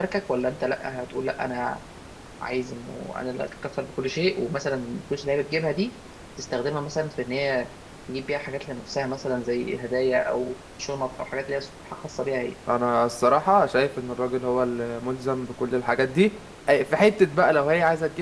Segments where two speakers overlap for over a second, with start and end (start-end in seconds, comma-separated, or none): none